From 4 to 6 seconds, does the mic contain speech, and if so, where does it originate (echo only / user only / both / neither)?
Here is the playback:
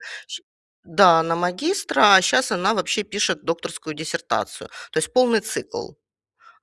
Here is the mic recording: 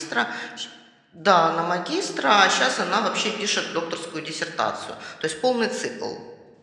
echo only